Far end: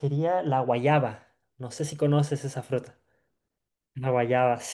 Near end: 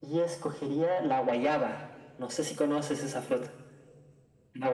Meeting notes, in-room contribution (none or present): none